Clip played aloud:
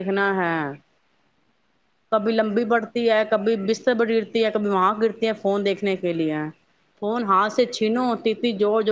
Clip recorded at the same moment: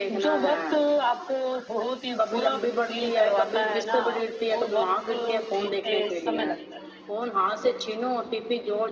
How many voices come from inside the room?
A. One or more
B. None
A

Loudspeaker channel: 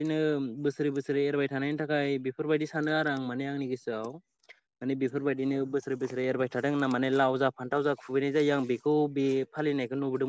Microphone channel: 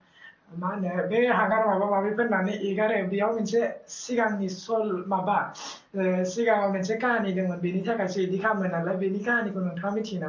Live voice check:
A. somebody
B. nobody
A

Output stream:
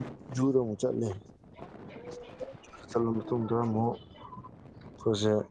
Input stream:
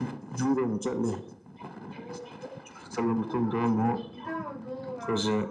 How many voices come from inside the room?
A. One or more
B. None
A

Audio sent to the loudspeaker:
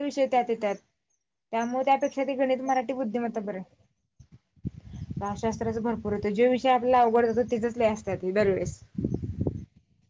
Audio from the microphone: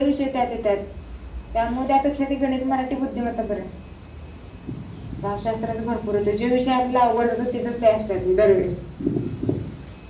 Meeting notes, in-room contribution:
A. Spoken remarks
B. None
B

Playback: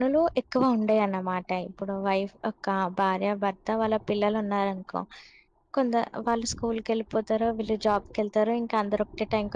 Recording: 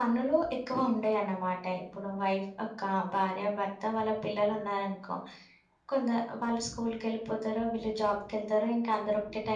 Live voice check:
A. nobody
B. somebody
A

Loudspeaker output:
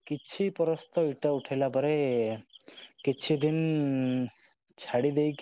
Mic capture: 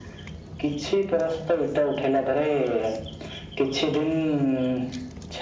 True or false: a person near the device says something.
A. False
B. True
A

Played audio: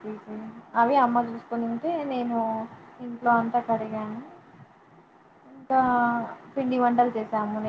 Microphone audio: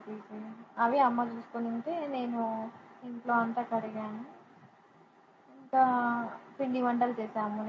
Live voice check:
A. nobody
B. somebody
A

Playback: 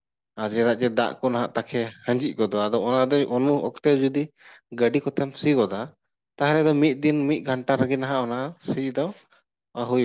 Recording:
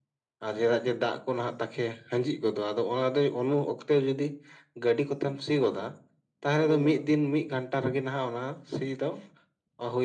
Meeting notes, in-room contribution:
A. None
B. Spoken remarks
B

